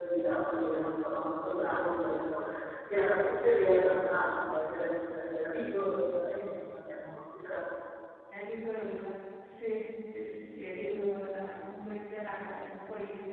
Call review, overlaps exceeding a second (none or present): none